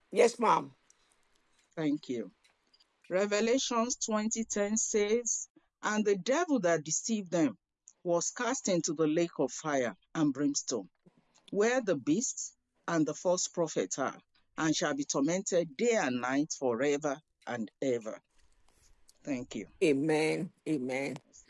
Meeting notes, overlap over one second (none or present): none